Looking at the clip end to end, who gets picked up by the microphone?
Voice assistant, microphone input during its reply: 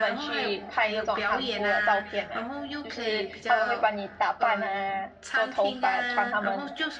both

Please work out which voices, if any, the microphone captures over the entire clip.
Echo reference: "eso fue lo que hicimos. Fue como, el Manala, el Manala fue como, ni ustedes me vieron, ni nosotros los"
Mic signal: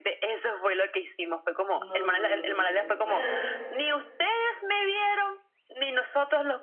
both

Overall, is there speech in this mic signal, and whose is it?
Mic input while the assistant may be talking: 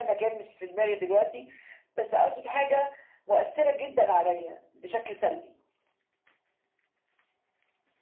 echo only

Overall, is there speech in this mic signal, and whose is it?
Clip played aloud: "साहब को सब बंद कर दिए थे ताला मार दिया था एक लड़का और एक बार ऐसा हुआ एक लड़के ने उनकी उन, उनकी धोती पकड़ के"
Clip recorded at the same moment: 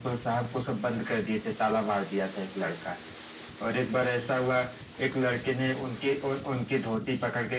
echo only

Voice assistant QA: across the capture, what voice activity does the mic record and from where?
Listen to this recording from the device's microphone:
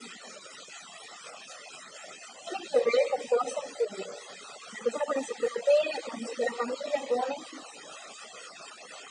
echo only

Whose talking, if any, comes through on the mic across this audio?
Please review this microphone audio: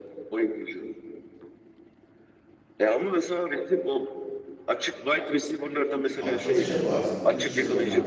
both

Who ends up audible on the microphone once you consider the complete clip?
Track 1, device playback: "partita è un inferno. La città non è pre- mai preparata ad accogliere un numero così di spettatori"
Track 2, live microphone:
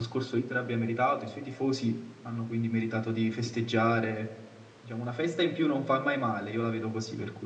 user only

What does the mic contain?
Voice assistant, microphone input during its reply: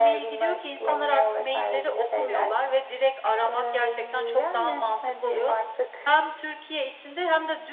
echo only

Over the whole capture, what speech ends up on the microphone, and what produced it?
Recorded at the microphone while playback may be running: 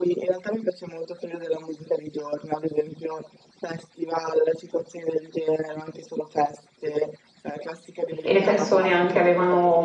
both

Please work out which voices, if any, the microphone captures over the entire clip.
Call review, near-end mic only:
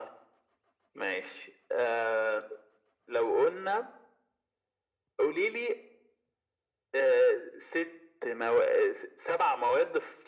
echo only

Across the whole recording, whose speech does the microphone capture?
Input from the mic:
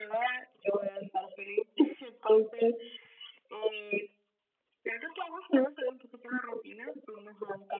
echo only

